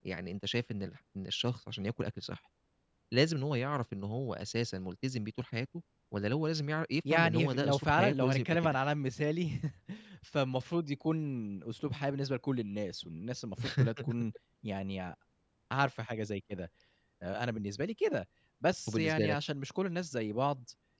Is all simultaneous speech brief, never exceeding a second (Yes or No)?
No